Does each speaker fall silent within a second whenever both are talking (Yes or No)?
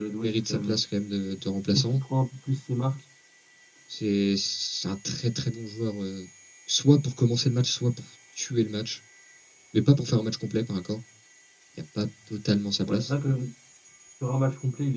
Yes